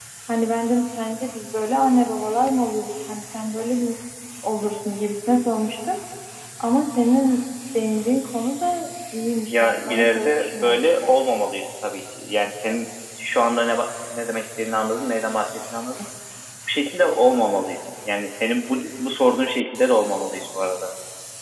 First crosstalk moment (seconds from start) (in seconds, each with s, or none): 9.5 s